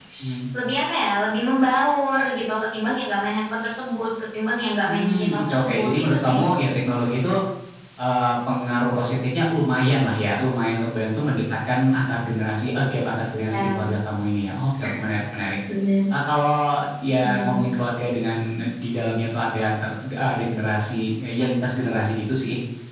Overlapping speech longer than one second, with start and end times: 4.8-6.5

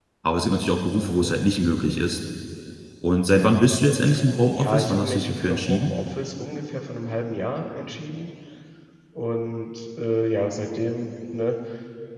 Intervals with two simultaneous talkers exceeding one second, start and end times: 4.5-5.9

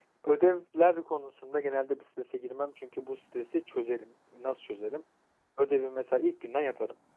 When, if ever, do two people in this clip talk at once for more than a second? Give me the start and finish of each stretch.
none

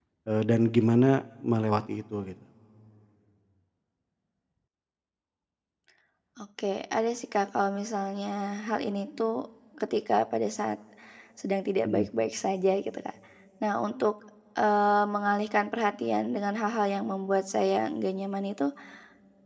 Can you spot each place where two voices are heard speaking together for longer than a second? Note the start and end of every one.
none

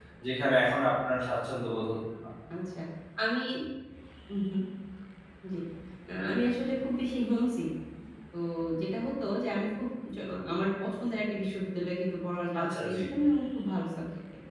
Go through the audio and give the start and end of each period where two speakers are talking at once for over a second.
none

